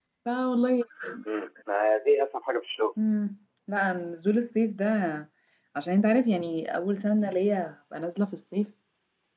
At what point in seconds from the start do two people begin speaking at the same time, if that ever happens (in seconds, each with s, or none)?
none